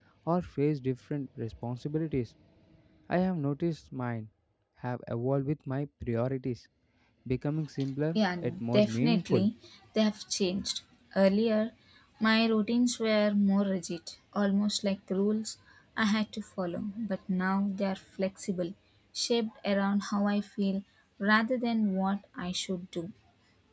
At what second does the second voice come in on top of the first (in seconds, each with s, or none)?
8.2 s